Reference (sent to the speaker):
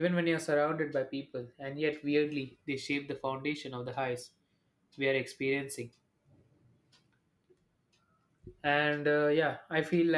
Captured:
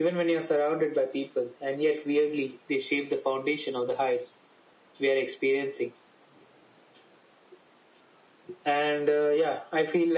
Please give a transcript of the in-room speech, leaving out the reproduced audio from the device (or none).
none